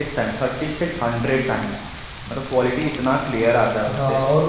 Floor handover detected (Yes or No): Yes